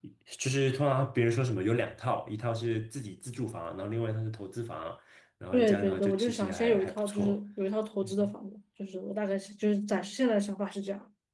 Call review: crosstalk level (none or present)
present